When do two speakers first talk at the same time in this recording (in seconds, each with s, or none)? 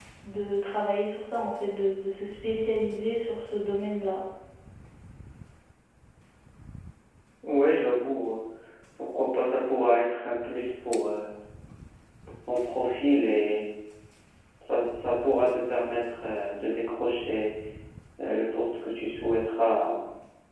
none